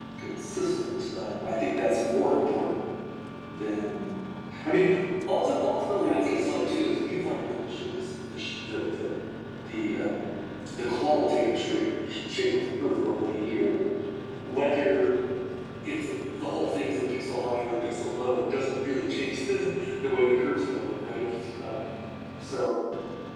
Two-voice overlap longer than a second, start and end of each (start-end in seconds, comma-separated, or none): 6.0-7.3